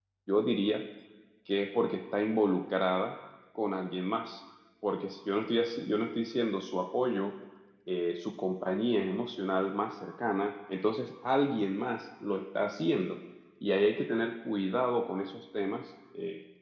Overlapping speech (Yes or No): No